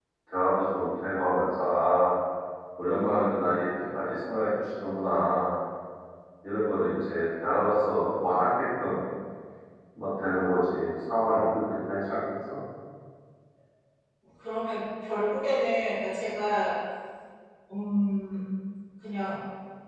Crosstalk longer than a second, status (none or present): none